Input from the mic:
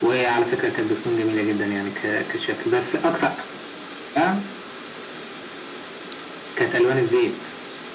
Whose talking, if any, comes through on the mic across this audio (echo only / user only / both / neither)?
echo only